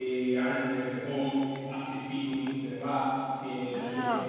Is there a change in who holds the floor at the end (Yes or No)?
Yes